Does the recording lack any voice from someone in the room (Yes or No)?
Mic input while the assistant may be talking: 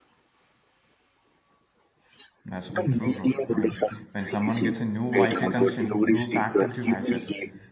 No